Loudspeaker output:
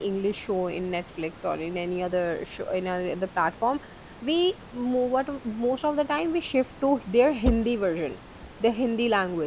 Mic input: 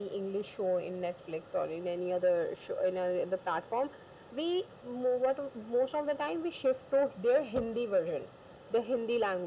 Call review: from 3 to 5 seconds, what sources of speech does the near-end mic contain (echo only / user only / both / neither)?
echo only